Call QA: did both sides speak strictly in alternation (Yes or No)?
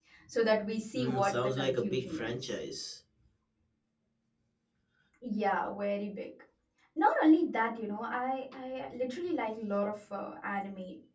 No